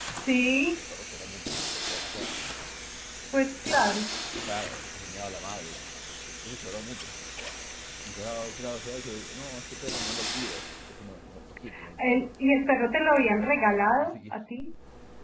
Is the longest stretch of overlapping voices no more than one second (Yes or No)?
No